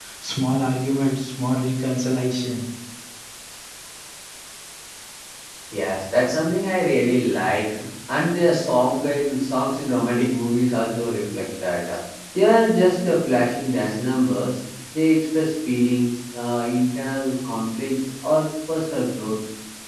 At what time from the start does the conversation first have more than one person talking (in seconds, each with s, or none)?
none